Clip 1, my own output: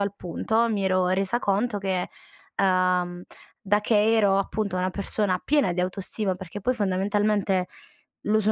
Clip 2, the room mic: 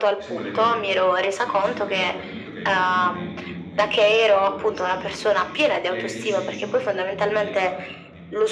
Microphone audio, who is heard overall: both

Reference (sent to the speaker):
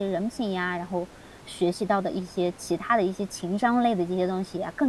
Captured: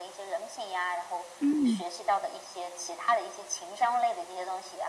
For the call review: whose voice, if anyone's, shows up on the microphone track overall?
both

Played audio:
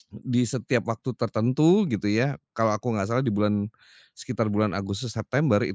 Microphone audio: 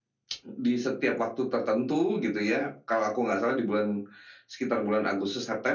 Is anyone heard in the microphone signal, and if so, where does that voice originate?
echo only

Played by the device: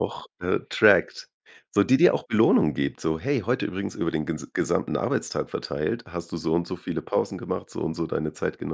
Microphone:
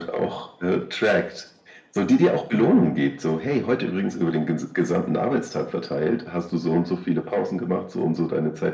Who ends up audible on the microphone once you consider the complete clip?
both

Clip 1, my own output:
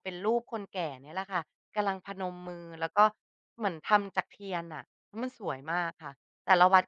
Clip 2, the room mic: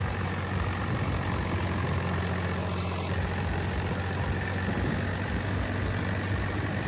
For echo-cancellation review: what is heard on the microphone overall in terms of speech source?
neither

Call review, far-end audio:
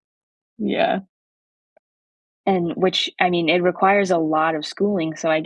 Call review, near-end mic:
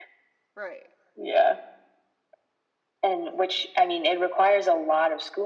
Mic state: both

